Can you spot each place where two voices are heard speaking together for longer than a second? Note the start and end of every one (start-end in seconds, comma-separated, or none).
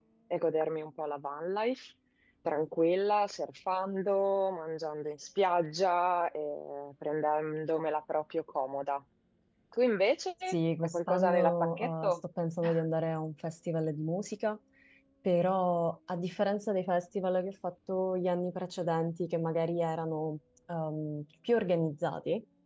10.8-12.2